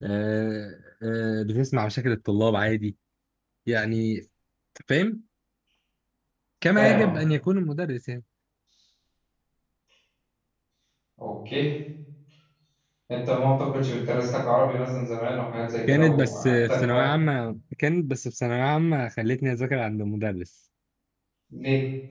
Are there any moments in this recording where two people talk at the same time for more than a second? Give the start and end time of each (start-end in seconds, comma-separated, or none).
15.9-17.1